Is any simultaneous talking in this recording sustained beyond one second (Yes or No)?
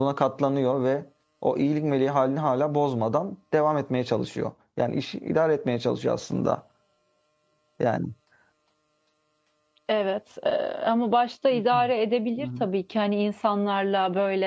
No